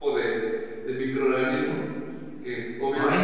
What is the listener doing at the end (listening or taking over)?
listening